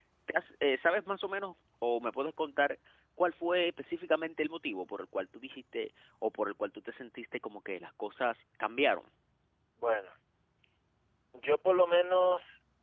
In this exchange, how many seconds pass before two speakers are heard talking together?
none

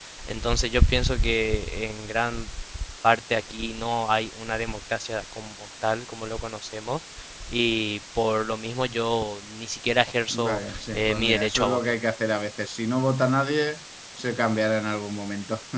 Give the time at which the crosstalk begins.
10 s

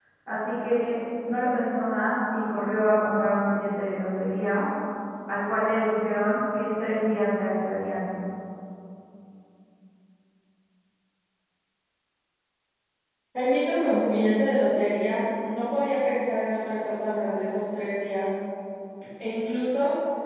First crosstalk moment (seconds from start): none

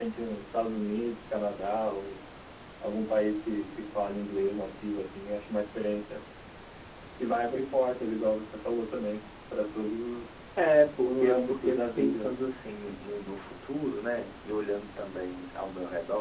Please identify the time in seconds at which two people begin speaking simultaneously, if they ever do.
11 s

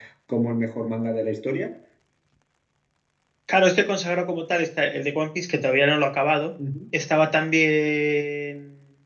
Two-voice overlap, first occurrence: none

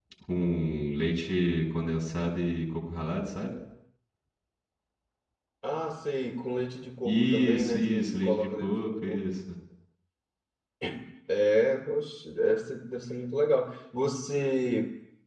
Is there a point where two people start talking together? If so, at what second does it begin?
7 s

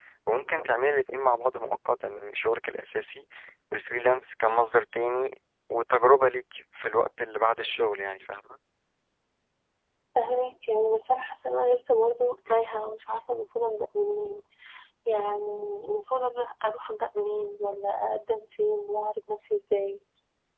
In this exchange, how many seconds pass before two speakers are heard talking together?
none

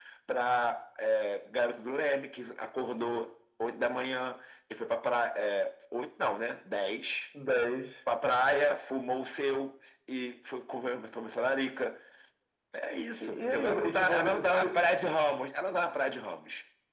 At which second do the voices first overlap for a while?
13 s

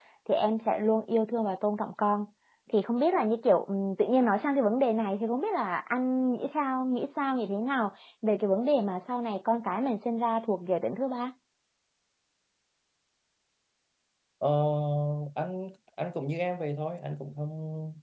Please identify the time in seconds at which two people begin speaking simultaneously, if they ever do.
none

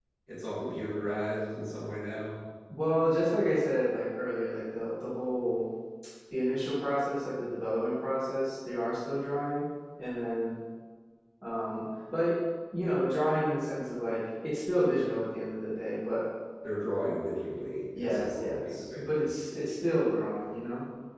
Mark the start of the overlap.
18 s

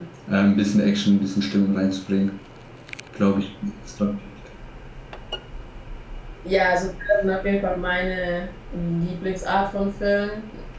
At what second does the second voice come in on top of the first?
none

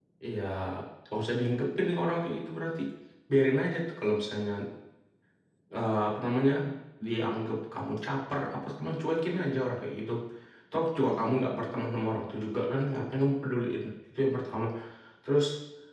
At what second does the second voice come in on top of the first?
none

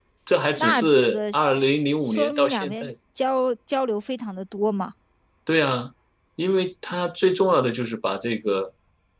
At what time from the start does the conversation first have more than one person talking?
1 s

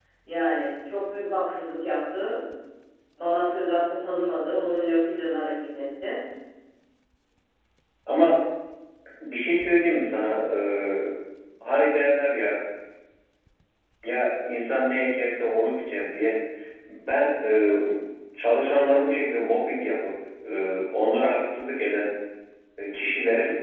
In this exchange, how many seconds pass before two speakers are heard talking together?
none

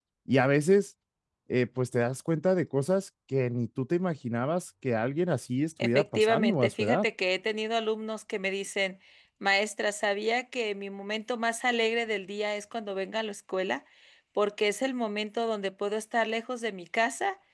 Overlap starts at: 6 s

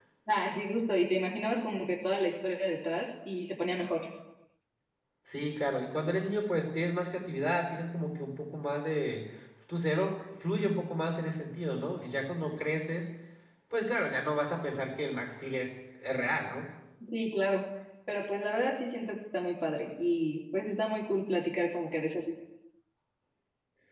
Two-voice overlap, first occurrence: none

